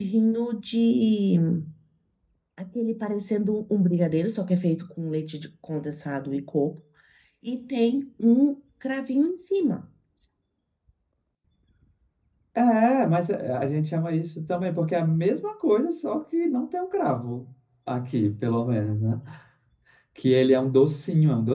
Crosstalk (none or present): none